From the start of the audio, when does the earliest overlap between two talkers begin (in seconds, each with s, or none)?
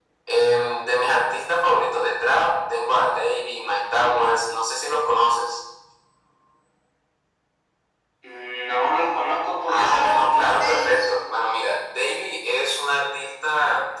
9.7 s